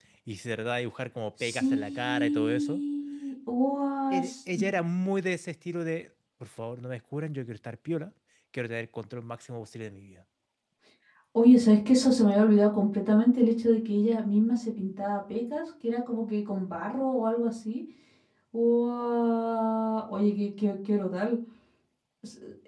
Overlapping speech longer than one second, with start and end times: 1.4-2.8

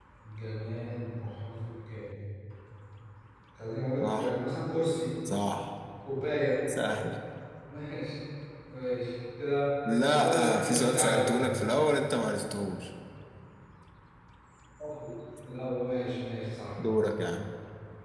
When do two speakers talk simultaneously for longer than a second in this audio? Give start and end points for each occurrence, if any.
10.1-11.4

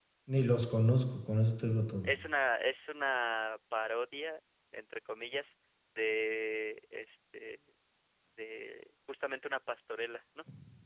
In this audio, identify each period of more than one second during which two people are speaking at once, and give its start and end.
none

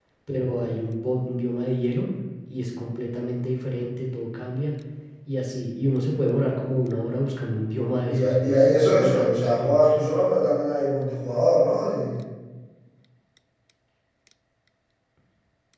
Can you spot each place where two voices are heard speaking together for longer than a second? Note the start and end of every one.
8.1-9.8

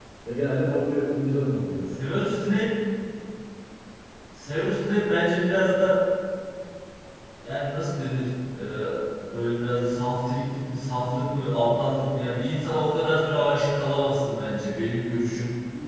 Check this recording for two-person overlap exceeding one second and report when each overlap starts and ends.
none

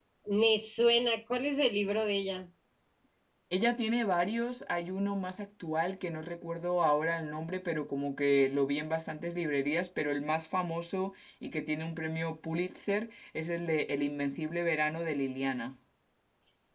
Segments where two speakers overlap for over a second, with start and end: none

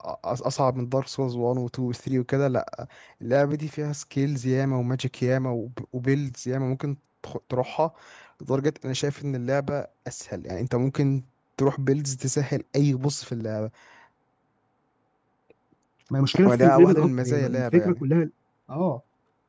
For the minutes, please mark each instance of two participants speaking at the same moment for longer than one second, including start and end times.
16.5-18.0

